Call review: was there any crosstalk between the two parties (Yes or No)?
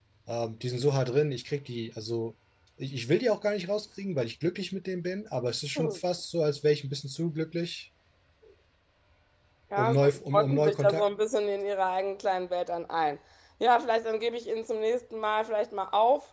Yes